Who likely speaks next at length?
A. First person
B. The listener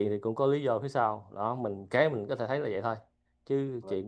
A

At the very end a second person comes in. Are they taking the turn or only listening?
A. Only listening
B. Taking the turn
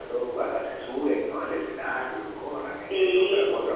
B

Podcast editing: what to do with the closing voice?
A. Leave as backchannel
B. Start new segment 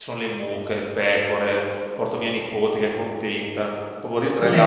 A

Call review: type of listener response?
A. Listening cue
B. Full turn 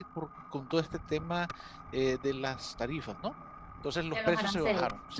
A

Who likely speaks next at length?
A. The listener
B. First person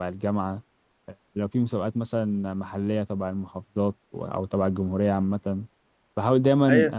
A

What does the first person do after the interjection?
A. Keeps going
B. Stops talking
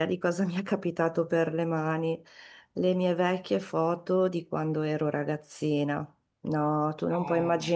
A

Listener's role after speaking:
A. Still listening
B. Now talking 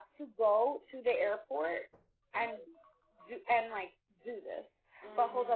A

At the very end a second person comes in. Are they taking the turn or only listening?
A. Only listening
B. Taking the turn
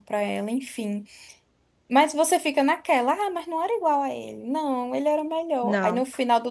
A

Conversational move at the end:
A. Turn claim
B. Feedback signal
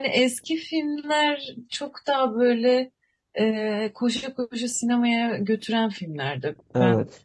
B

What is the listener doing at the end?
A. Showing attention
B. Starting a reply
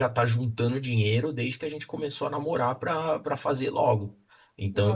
A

